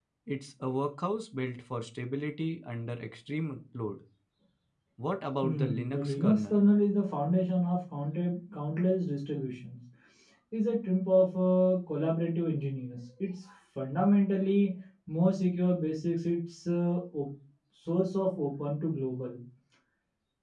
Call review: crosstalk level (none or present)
present